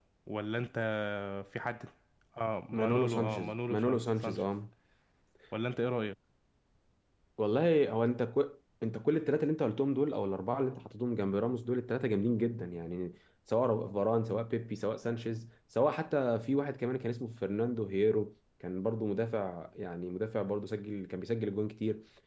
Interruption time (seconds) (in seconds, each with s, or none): 2.8 s